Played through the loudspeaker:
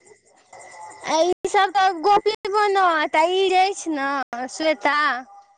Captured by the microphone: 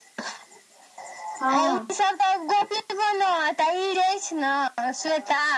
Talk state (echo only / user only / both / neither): both